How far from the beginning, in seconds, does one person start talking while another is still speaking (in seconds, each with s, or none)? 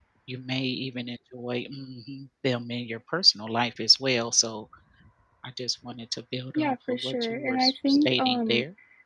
6.5 s